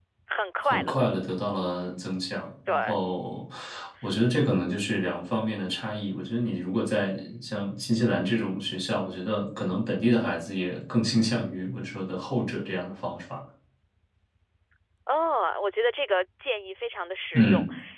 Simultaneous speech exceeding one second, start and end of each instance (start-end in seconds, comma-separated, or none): none